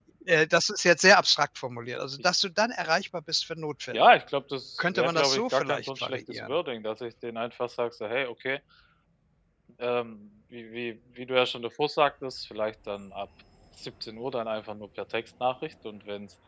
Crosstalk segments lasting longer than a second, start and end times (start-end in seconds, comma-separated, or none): 4.8-6.5